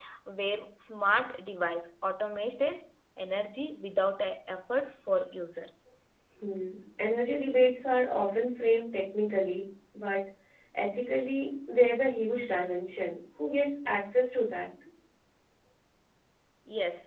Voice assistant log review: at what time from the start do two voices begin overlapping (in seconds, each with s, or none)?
none